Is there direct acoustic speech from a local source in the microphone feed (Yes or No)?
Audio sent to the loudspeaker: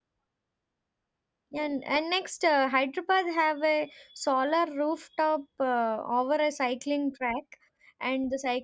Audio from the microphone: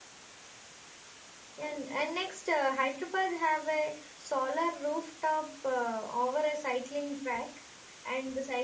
No